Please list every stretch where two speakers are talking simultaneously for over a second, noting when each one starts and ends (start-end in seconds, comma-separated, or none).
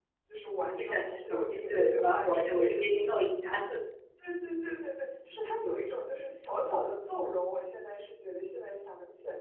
0.8-3.2